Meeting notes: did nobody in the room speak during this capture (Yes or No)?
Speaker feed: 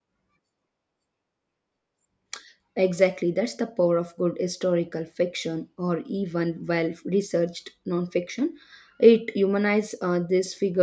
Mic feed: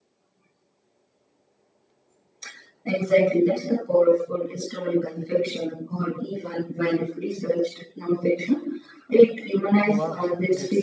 No